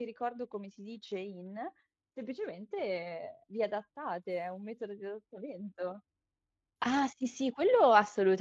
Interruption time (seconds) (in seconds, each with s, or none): none